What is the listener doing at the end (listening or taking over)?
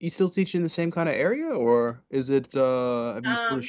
listening